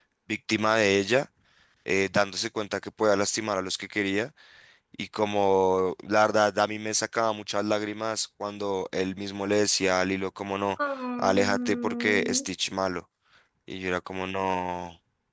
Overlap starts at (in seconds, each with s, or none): 11.2 s